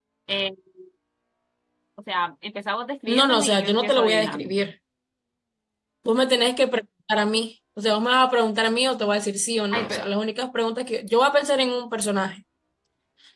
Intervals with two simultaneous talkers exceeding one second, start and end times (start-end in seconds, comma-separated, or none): 3.1-4.5